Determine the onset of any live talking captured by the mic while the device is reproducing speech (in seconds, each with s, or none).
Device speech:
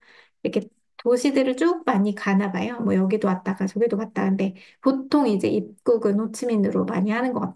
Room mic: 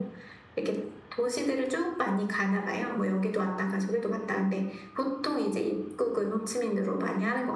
none